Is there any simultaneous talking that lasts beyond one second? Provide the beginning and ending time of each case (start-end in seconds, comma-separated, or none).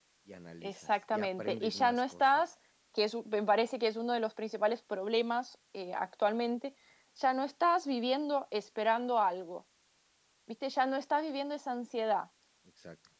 0.6-2.4